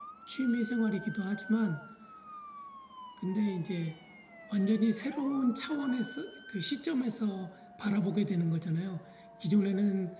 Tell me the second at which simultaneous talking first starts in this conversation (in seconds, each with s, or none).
none